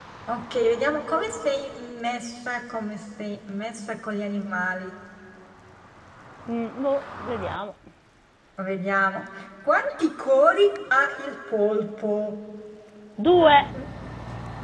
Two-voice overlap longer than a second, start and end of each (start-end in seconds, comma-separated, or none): none